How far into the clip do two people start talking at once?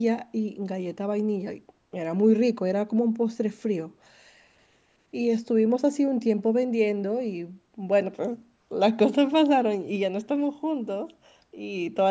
none

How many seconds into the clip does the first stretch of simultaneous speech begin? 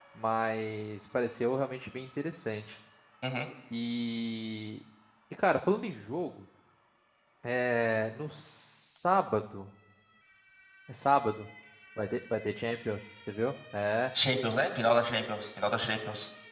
none

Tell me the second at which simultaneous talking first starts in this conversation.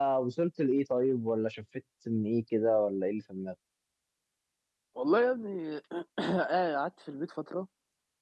none

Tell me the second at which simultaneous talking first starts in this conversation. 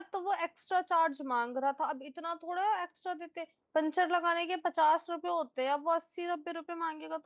none

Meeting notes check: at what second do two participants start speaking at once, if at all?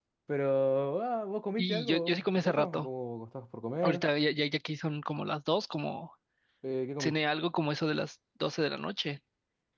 1.6 s

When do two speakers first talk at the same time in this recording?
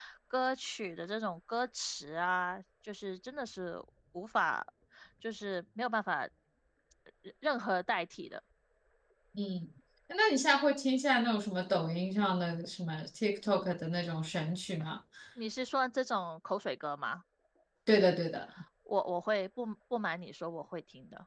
none

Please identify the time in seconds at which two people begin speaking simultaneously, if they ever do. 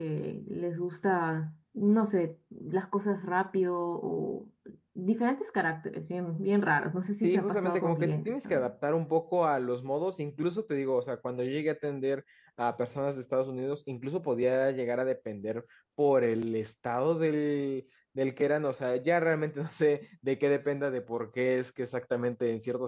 7.2 s

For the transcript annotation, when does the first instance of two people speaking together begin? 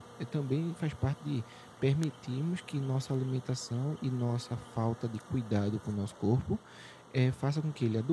none

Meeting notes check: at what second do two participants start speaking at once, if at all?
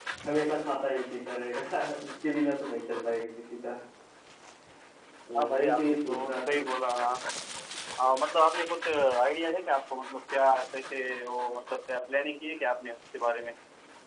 5.4 s

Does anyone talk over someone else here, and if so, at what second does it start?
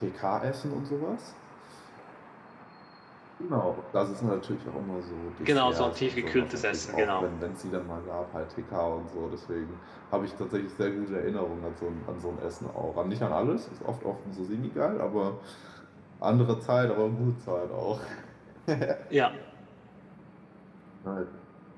5.4 s

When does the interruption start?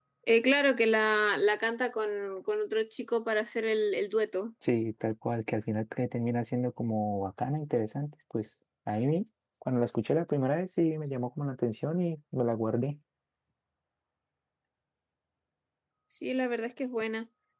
none

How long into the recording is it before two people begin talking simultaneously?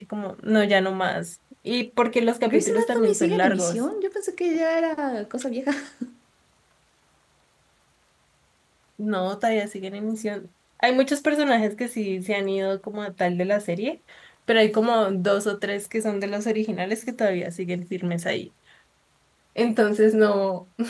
2.5 s

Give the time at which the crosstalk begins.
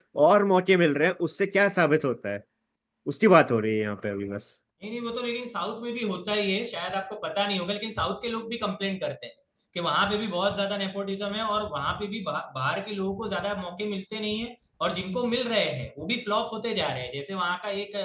none

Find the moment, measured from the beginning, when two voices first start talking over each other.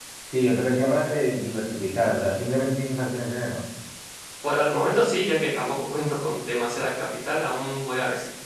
none

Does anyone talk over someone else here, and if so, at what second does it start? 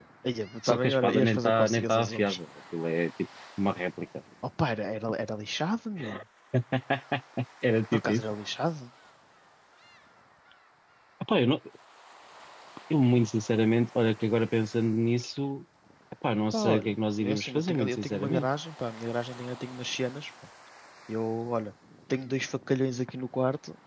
0.7 s

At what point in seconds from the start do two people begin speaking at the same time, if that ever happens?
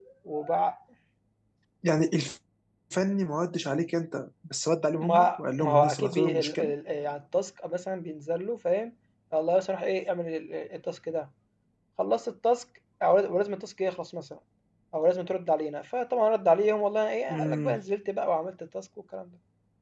5.0 s

